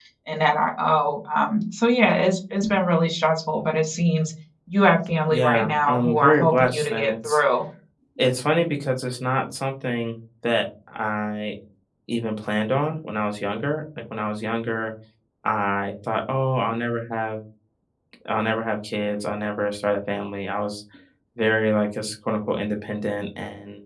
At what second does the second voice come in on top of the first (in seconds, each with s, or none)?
5.3 s